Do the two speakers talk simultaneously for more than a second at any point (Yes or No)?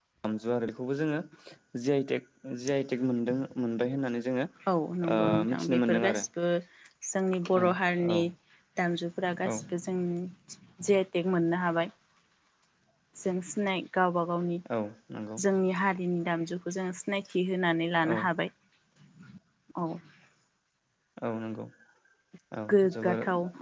Yes